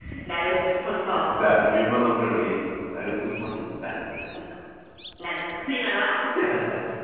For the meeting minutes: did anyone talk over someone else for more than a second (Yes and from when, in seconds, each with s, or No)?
No